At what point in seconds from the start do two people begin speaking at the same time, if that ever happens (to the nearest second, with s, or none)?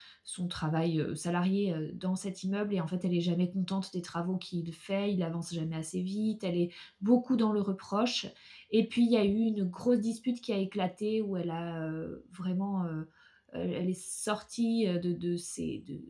none